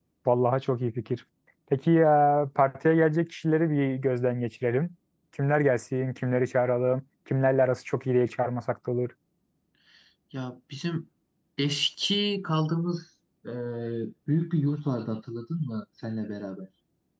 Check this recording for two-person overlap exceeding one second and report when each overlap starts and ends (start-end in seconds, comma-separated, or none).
none